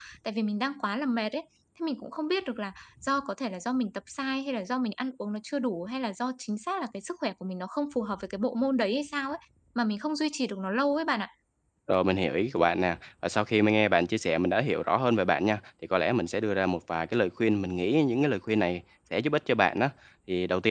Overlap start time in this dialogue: none

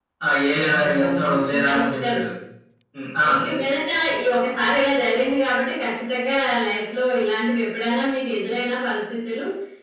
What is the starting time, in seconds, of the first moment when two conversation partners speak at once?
0.6 s

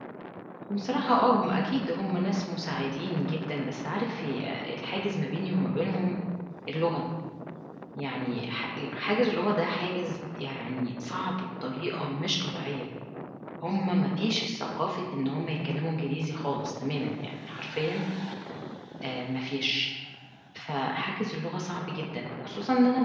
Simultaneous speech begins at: none

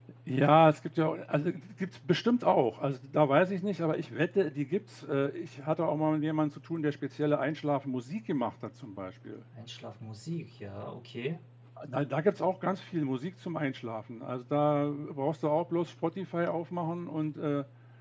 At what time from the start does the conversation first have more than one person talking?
none

